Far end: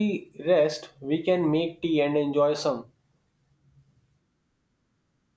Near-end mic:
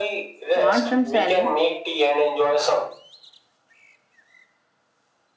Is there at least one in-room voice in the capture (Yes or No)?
Yes